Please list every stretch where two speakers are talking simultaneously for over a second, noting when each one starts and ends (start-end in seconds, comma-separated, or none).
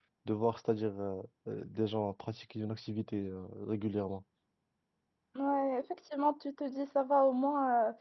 none